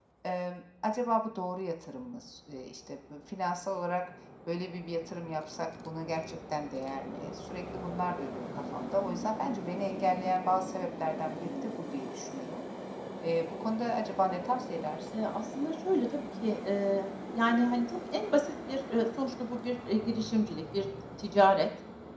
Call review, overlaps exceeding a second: none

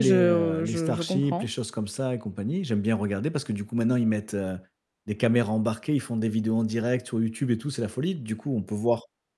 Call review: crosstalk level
present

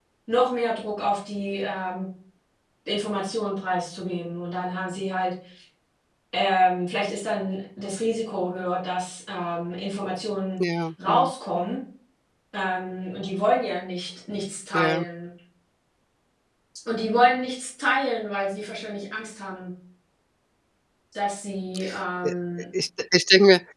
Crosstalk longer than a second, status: none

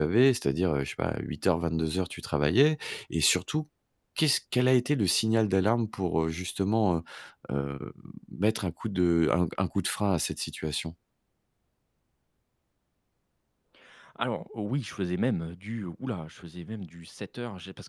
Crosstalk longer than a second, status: none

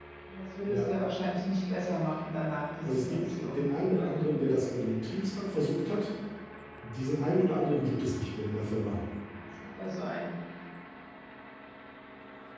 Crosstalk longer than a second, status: present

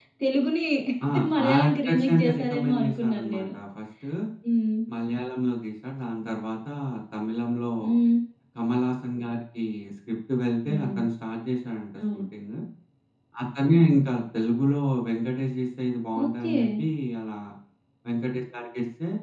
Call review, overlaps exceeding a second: present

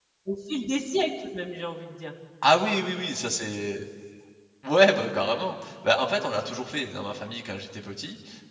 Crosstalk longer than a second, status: none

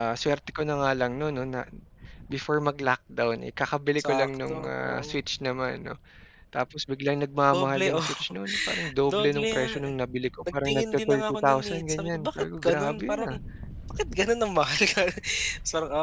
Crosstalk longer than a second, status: present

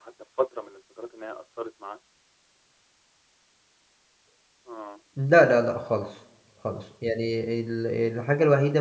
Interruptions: none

